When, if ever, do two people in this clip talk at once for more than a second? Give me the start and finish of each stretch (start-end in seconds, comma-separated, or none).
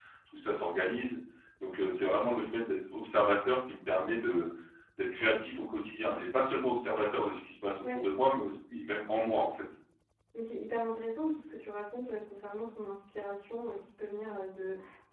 none